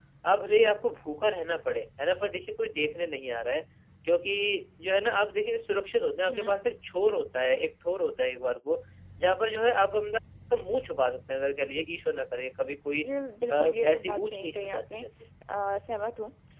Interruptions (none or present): present